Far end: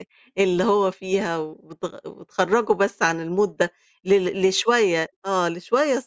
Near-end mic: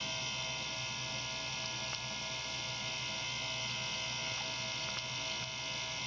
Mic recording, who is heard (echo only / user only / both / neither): neither